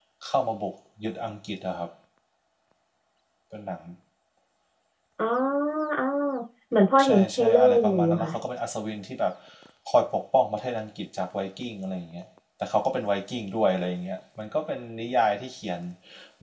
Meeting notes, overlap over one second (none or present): present